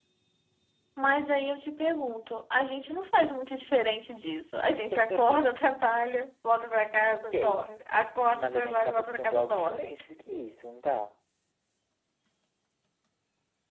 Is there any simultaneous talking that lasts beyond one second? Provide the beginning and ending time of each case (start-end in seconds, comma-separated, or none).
8.3-9.9